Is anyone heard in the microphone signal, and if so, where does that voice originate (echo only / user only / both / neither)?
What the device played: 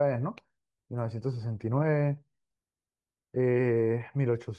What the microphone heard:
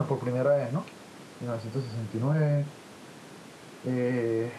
echo only